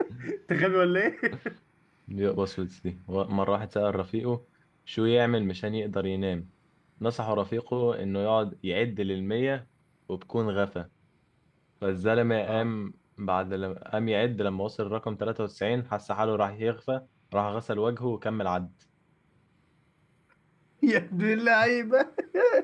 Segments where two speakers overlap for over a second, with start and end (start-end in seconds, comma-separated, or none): none